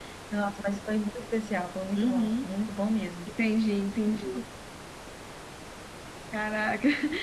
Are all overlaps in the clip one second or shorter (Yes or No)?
Yes